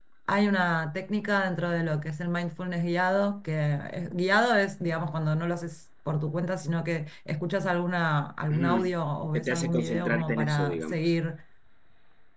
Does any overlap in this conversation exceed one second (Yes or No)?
Yes